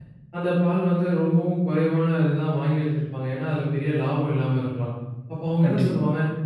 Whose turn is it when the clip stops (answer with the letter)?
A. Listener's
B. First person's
B